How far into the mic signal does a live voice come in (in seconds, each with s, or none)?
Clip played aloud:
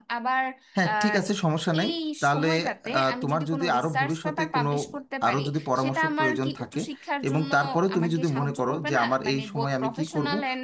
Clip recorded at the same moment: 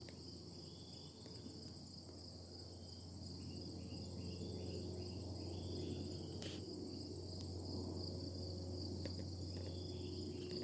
none